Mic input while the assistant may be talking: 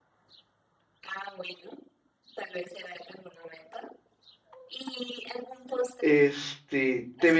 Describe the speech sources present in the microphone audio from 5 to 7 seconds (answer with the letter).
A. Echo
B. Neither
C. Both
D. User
C